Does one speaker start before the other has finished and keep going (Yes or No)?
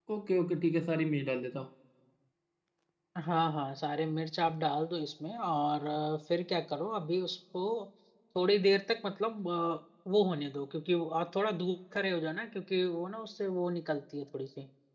No